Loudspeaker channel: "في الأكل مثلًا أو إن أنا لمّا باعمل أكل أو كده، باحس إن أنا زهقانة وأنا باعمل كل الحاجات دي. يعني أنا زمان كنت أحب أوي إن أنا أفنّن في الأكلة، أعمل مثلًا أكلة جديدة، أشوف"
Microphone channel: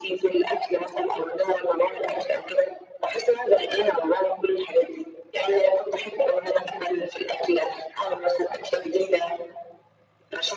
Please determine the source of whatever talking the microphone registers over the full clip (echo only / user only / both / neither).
echo only